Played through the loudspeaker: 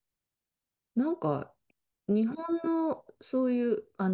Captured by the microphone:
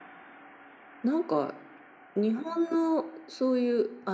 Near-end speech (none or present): none